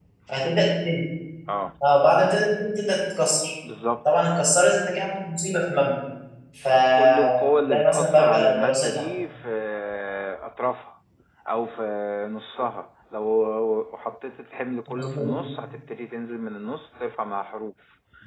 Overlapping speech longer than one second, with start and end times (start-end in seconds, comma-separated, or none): 7.0-9.1